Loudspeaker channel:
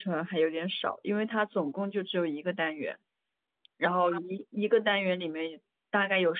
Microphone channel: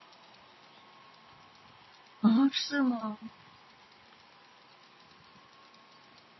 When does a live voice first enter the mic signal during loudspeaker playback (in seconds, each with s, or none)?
2.2 s